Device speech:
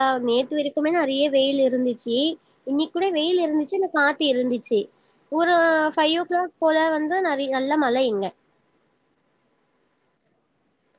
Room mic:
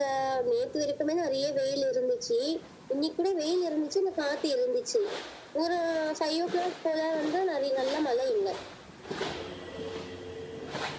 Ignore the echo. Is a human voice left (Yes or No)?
No